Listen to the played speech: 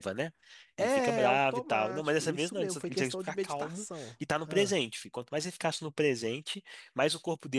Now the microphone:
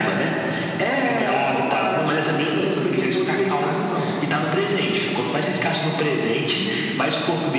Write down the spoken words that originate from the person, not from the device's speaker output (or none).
none